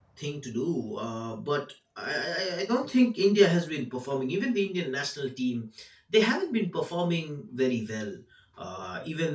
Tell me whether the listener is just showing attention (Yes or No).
Yes